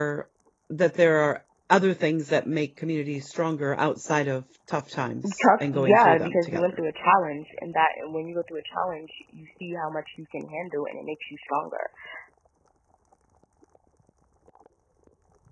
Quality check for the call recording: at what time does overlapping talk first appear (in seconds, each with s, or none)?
5.2 s